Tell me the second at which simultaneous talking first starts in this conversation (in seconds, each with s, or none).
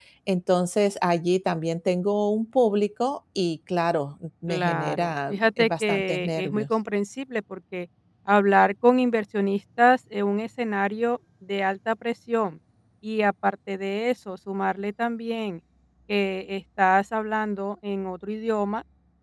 4.5 s